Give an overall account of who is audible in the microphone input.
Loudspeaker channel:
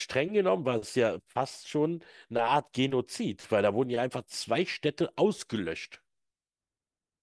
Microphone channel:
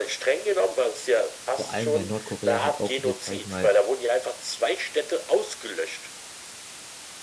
both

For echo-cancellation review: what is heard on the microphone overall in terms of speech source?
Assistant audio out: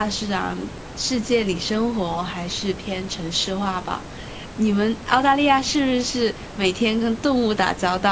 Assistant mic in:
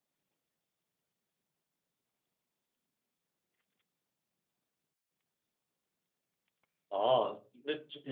user only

